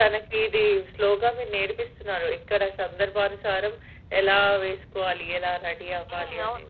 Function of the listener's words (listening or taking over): taking over